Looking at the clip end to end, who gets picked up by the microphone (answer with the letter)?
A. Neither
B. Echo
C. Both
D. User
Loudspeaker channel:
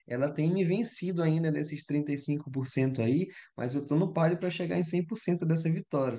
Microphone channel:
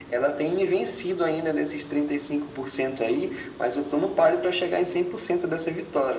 B